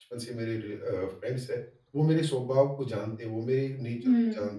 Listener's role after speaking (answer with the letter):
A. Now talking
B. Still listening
B